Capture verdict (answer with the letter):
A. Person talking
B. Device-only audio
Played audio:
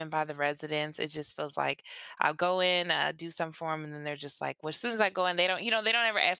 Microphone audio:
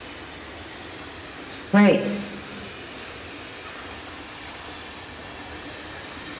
A